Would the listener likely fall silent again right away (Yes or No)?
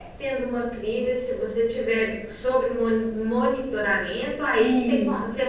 Yes